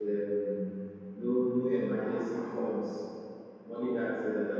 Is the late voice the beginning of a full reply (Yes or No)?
No